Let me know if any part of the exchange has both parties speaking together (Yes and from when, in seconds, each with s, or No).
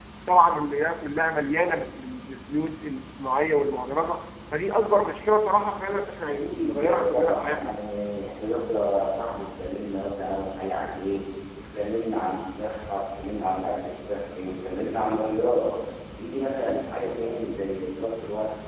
Yes, from 6.3 s